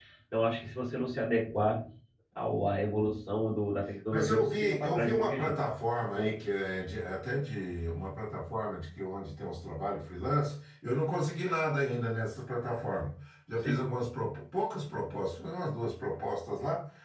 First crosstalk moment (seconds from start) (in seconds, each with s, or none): 4.1 s